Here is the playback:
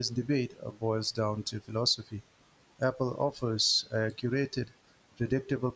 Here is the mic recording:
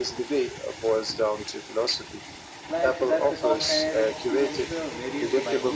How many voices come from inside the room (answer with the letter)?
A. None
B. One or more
B